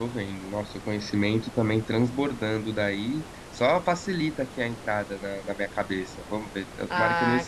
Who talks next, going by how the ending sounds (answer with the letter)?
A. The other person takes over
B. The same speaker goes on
A